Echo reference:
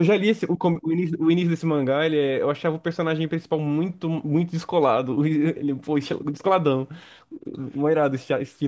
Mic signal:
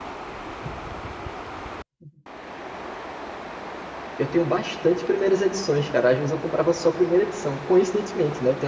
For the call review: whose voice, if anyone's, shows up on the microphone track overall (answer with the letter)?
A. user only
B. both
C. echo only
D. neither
A